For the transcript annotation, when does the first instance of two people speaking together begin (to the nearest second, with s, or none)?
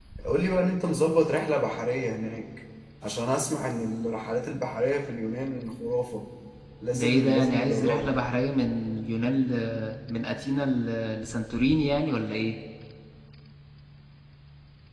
7 s